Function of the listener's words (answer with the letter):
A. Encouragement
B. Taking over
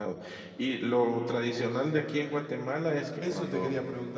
B